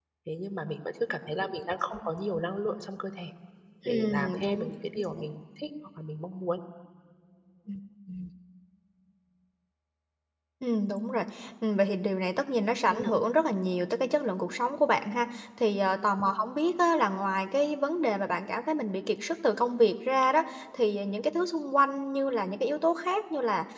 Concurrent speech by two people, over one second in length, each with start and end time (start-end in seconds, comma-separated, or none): 3.9-5.2